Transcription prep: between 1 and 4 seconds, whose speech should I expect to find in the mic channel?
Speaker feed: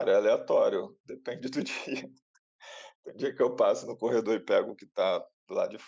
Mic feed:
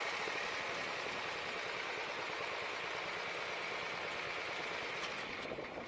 neither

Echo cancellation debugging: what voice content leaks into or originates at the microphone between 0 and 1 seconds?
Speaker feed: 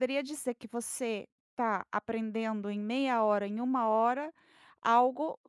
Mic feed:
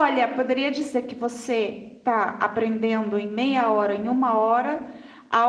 echo only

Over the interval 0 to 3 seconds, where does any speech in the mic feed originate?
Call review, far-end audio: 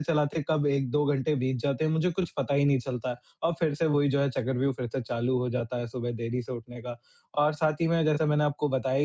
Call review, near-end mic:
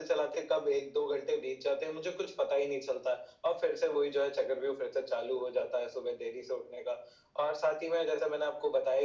echo only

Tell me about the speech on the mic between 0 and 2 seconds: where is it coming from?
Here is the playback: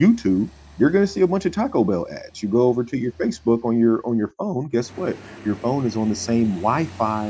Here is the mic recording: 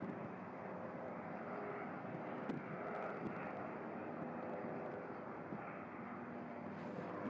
neither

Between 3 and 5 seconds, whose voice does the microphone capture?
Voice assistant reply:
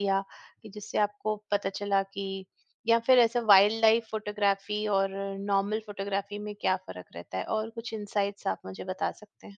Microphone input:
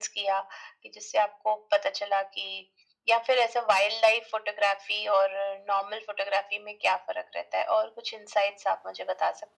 echo only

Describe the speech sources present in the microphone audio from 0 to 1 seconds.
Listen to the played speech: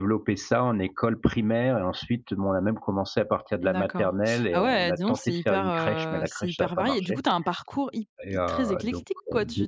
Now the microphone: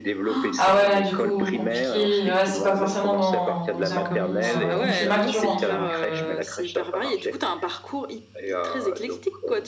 both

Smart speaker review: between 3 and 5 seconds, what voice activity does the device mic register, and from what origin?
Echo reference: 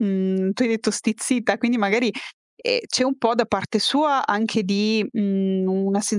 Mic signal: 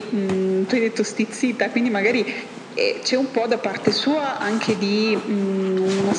echo only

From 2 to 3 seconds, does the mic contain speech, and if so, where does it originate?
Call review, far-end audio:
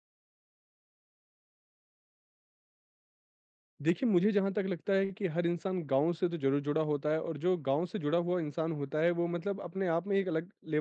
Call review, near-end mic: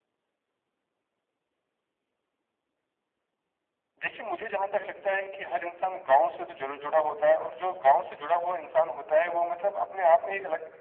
neither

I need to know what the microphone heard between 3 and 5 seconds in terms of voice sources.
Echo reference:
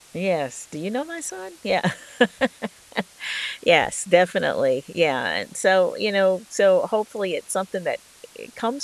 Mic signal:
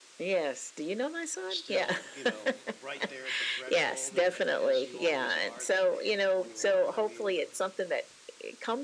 both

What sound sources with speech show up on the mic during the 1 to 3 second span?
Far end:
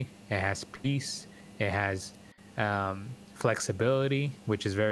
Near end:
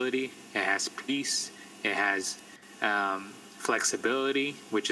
echo only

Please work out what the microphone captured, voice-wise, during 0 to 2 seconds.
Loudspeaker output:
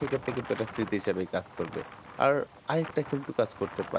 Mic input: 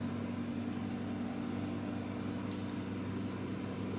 neither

